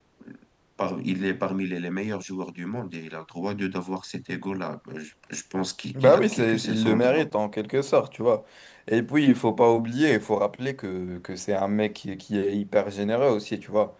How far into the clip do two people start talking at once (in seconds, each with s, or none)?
5.9 s